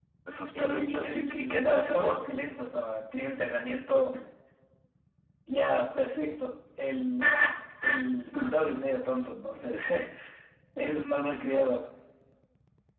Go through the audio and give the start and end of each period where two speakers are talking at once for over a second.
0.6-2.2

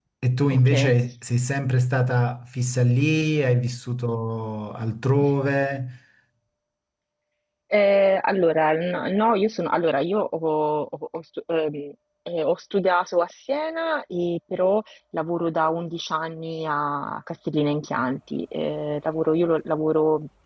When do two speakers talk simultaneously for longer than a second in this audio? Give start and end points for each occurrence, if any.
none

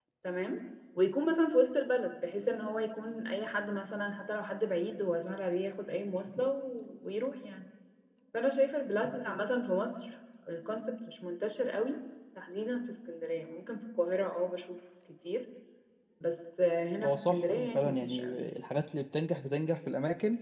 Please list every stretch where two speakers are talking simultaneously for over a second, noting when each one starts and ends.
17.0-18.4

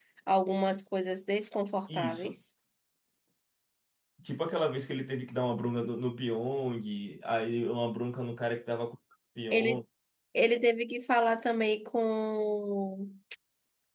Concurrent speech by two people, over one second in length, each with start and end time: none

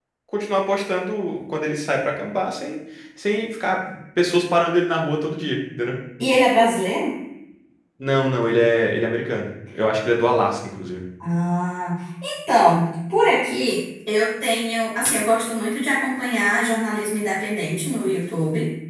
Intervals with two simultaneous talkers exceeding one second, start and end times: none

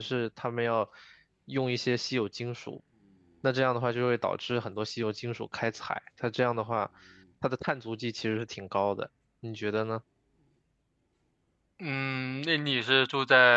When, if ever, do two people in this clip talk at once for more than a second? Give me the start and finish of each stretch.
none

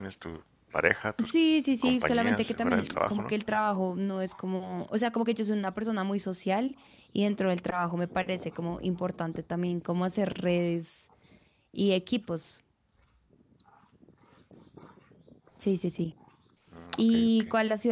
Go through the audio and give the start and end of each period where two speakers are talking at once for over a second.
1.8-3.3

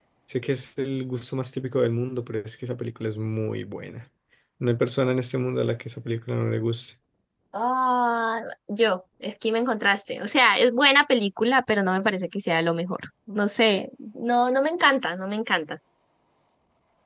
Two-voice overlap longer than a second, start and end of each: none

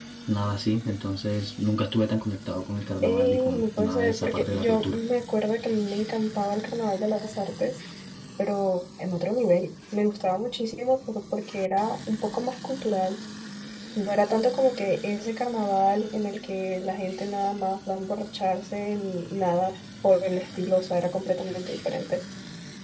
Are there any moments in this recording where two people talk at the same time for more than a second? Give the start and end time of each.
3.0-5.0

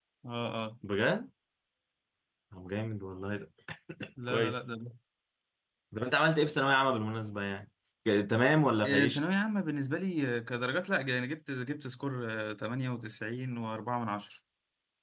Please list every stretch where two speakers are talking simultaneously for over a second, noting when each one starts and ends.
none

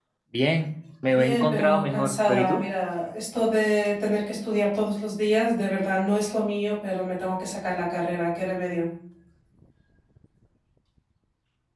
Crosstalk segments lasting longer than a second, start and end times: 1.1-2.6

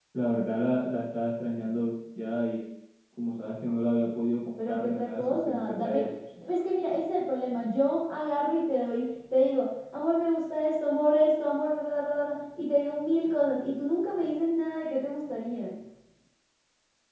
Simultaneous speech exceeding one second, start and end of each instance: 4.6-6.0

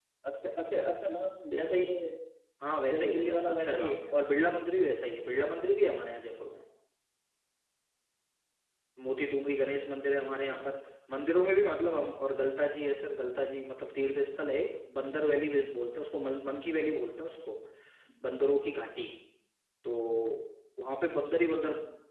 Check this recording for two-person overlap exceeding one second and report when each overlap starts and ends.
2.9-4.1

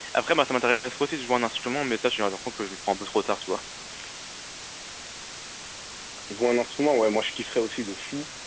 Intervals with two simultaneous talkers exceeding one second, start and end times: none

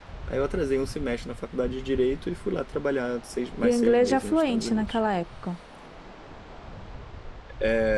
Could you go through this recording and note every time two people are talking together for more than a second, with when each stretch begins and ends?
3.6-5.0

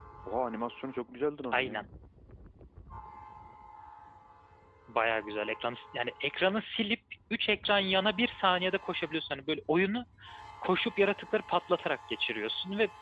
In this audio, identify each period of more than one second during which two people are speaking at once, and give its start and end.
none

